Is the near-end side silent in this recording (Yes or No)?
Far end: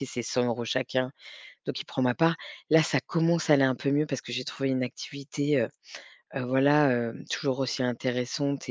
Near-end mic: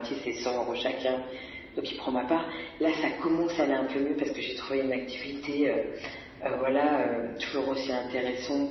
Yes